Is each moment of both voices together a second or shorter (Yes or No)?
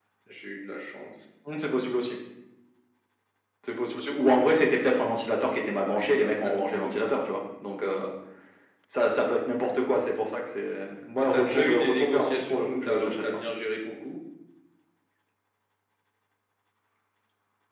No